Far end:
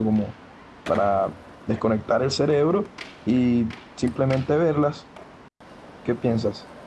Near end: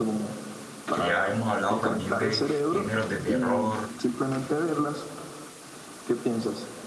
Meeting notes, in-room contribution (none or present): present